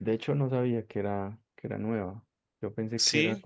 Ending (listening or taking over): listening